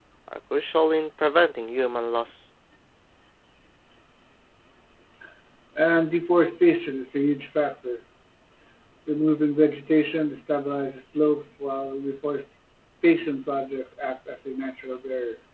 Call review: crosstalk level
none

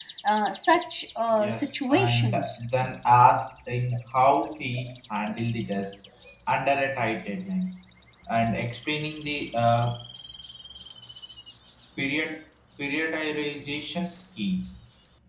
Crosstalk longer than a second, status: present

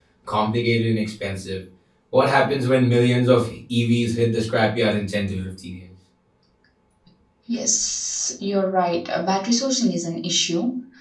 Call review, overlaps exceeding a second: none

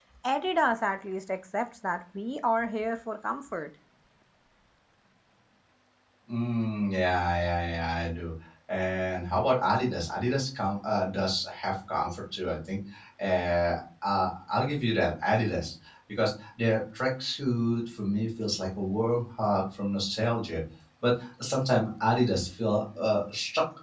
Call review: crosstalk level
none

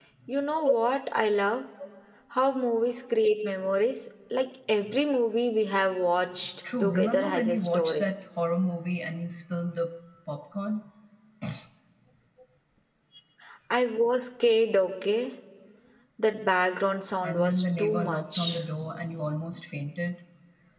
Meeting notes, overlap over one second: present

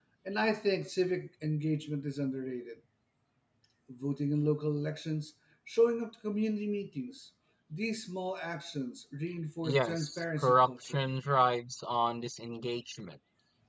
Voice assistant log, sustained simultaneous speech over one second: present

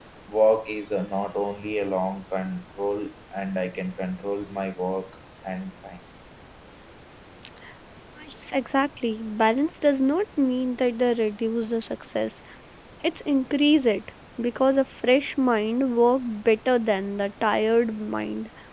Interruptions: none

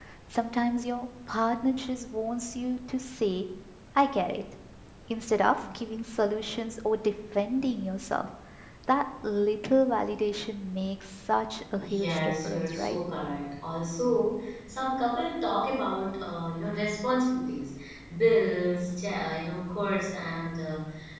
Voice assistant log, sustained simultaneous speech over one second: present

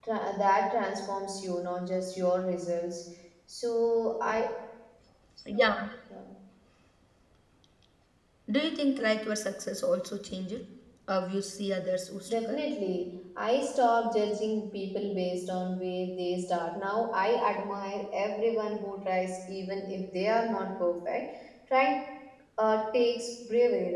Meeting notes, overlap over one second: none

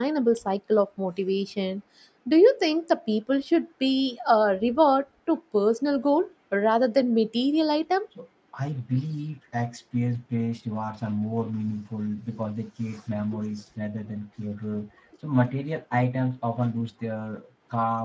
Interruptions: none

